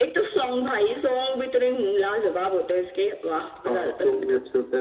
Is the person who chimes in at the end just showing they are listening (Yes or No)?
No